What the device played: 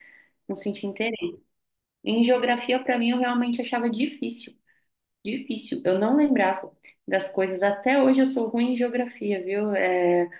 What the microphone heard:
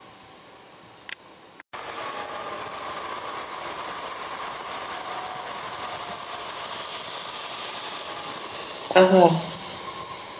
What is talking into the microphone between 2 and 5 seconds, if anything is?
neither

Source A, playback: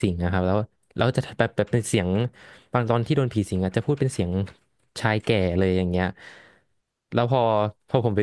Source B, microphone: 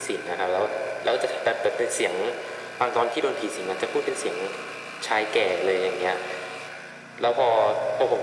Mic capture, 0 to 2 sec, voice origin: echo only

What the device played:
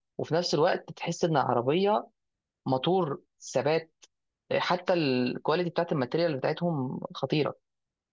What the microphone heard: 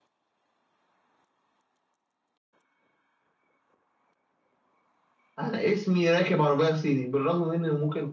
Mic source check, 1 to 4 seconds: neither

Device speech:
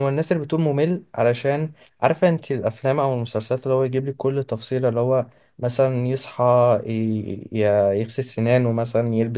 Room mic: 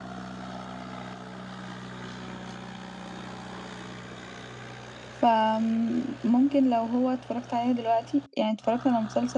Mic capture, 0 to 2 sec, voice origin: neither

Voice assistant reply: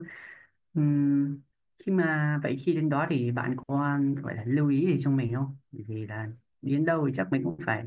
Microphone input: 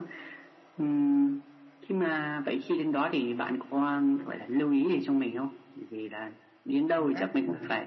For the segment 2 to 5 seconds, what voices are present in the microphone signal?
echo only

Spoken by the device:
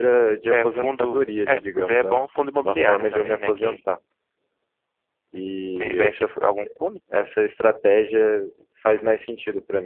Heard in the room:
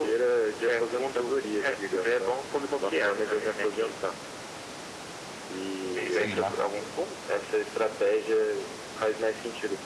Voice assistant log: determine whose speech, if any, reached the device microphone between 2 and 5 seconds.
echo only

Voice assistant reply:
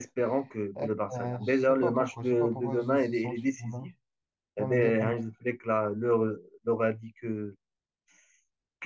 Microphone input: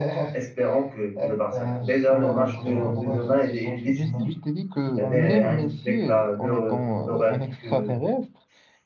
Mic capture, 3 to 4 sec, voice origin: both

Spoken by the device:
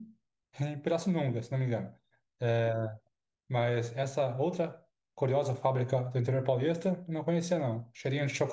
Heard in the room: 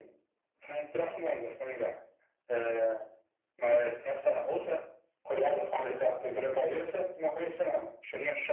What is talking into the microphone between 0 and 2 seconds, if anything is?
echo only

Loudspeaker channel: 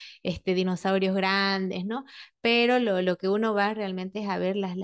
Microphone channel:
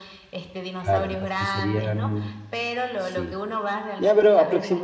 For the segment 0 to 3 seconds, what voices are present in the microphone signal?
both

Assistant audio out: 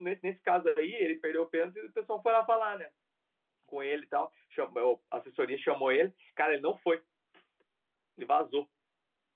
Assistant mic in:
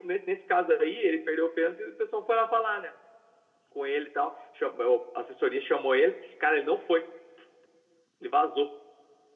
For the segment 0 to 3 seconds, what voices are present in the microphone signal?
echo only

